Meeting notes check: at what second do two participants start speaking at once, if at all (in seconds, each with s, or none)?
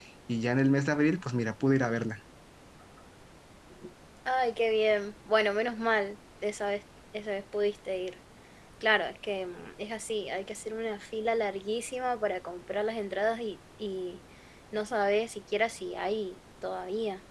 none